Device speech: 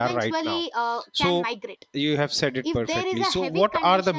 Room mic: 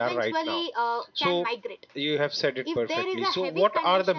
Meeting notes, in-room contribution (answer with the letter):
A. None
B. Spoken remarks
A